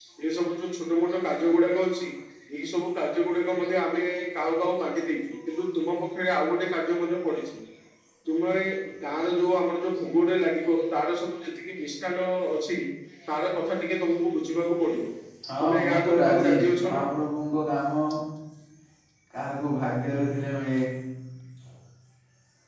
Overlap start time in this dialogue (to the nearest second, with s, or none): 16 s